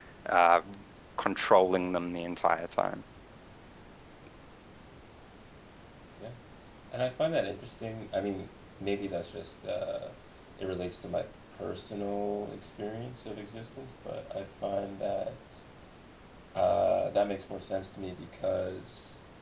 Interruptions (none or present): none